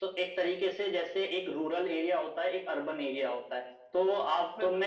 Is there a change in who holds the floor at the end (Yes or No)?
No